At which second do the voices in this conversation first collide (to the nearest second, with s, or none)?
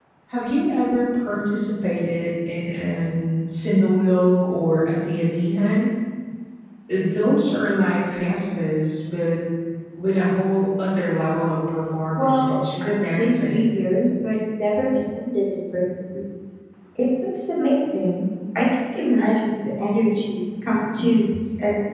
12 s